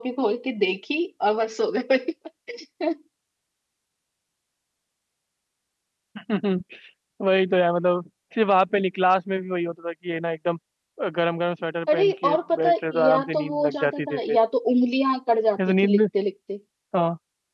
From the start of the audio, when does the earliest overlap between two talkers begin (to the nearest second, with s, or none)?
12 s